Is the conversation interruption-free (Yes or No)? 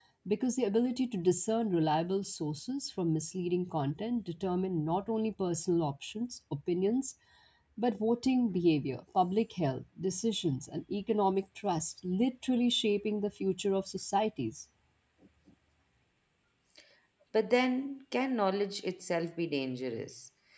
Yes